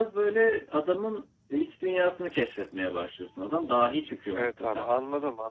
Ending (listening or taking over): taking over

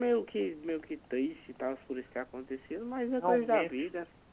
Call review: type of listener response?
taking over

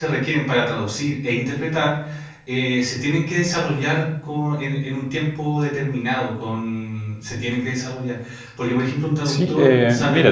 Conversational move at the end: taking over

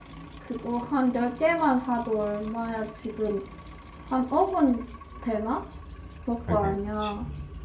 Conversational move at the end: taking over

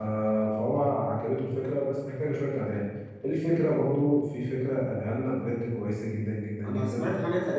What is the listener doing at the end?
taking over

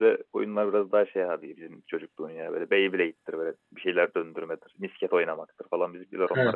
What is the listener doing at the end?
taking over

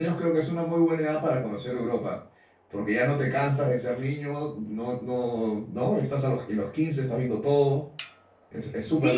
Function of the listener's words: taking over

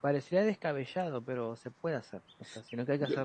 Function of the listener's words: listening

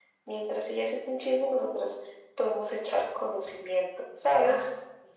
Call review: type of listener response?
taking over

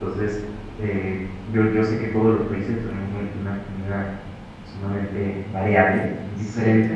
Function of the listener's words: listening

